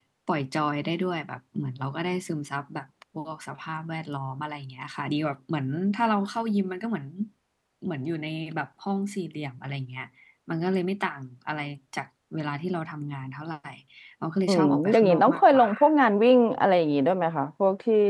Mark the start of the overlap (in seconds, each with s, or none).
14.5 s